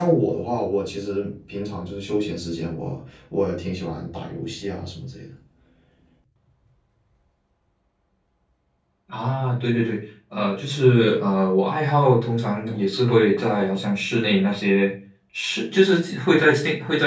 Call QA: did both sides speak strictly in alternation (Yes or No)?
Yes